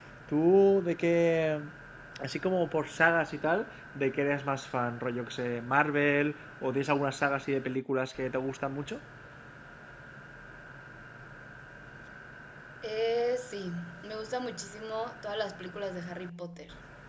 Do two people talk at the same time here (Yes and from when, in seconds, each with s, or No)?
No